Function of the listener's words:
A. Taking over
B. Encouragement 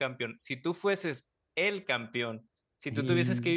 B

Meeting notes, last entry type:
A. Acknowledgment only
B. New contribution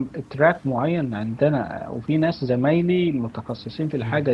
A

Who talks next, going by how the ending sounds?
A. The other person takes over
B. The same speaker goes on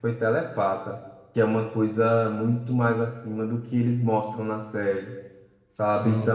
B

